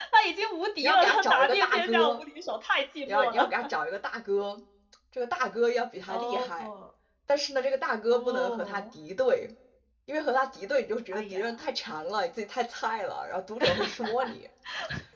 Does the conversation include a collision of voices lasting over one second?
Yes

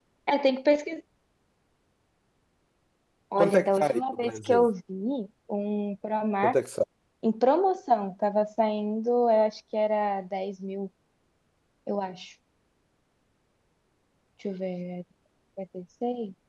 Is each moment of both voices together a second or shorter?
No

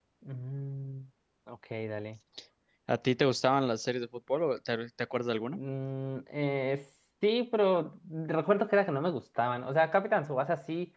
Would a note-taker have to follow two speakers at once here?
No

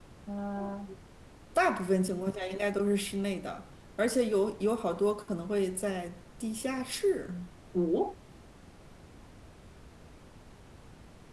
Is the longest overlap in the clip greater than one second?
No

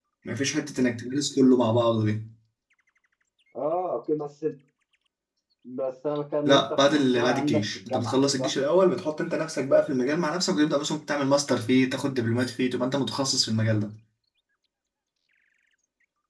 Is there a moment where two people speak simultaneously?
Yes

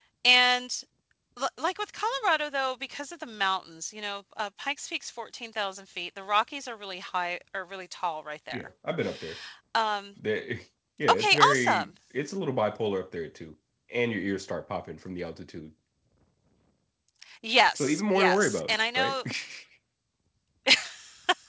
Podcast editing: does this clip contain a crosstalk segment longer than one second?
Yes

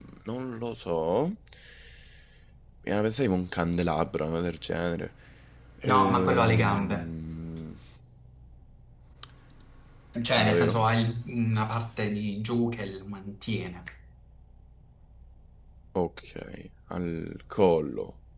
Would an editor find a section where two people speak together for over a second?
Yes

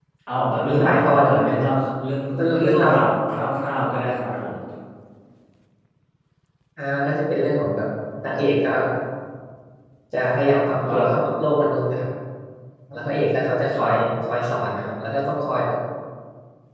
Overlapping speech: Yes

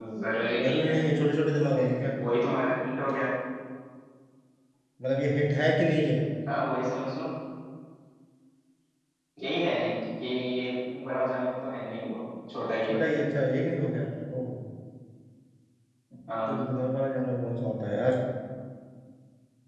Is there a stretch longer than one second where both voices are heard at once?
No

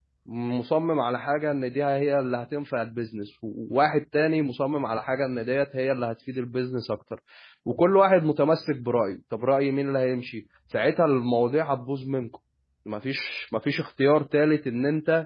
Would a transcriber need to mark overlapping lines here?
No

